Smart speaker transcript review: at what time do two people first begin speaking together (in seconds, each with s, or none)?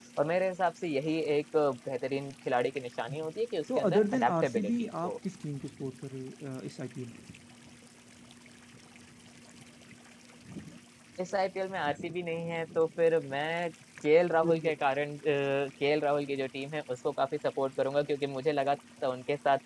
3.8 s